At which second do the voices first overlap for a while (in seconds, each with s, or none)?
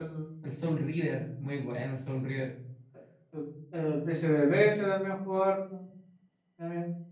none